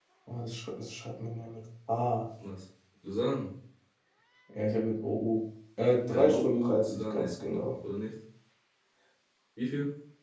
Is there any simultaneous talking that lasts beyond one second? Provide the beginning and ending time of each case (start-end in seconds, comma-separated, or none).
6.1-7.3